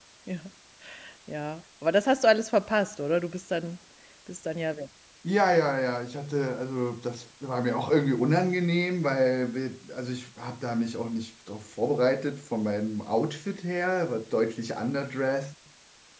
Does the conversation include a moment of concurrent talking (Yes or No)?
No